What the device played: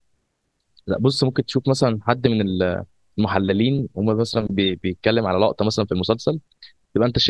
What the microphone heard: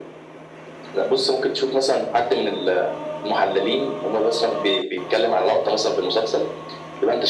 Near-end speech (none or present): none